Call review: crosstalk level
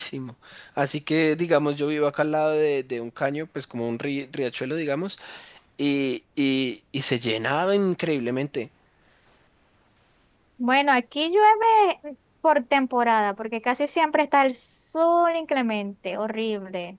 none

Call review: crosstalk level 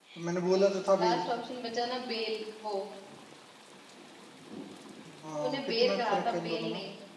present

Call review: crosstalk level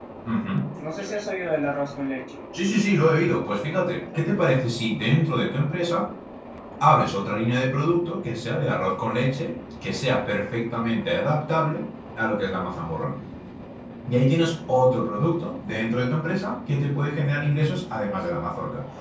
none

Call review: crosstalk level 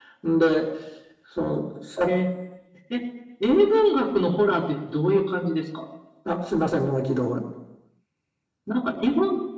none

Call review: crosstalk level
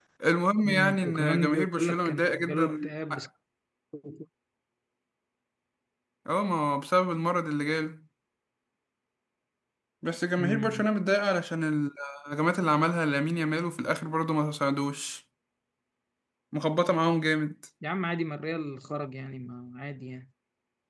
present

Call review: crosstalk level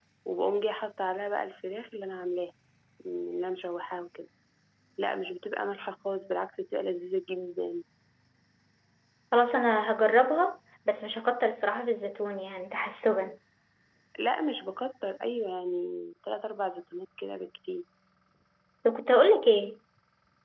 none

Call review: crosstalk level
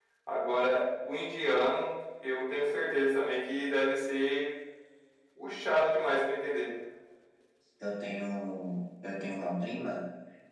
none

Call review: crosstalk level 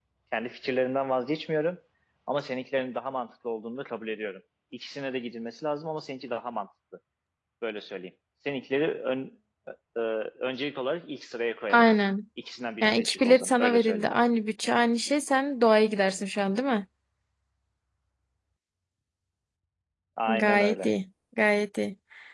present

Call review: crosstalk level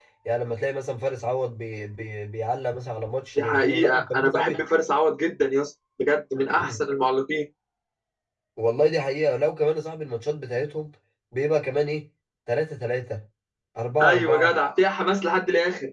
present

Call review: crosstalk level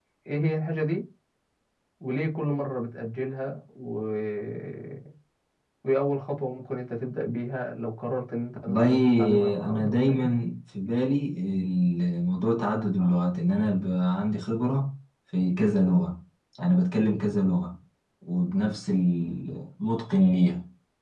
present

